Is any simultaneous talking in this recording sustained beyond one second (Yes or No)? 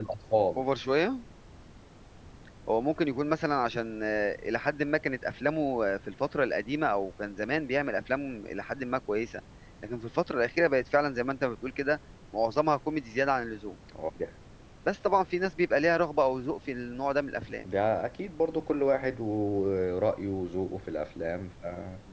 No